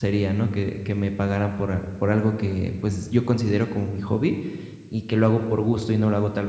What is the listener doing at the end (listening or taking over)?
listening